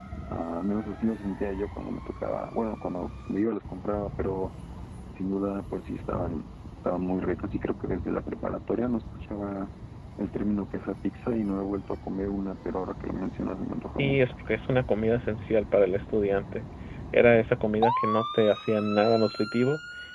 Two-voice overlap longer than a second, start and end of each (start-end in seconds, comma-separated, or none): none